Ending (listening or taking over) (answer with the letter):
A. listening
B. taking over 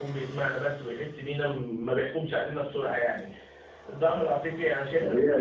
B